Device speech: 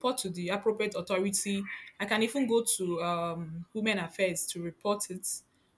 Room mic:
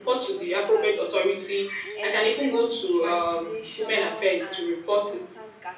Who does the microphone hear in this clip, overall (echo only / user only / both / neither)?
both